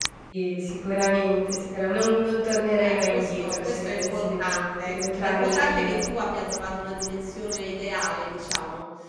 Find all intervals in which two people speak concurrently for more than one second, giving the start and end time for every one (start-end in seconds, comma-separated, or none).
2.7-6.0